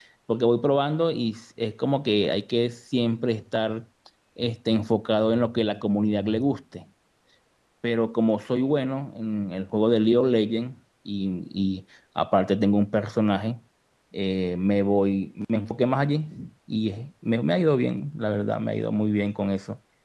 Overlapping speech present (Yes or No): No